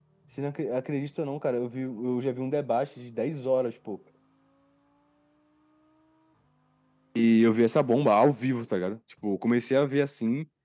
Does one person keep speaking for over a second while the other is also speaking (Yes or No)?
No